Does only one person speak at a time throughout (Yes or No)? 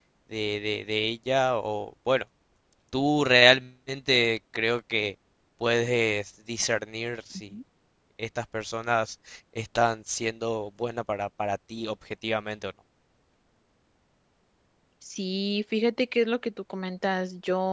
Yes